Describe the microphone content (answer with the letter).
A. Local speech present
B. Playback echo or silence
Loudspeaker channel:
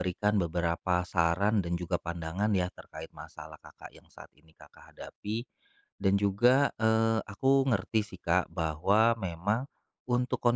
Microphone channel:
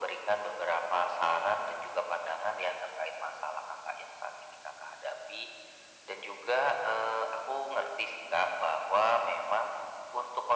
B